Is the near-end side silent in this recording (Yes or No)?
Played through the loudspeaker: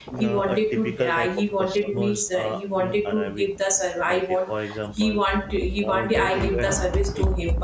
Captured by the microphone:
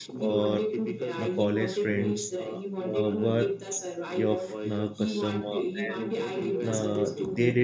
No